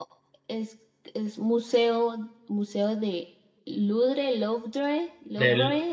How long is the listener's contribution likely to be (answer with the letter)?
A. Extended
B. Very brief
A